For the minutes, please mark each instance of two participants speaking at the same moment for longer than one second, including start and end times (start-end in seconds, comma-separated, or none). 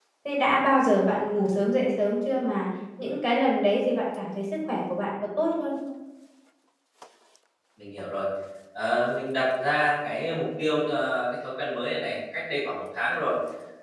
none